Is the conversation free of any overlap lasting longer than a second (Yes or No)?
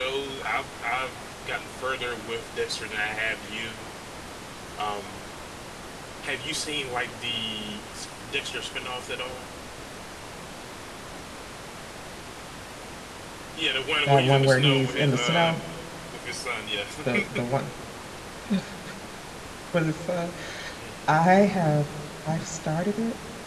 No